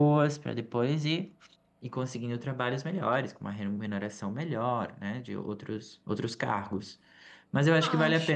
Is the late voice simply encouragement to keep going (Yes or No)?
Yes